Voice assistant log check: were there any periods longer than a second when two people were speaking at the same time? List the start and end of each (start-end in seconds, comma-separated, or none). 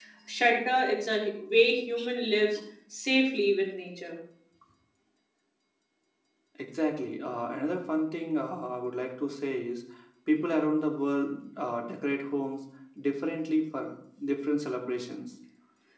none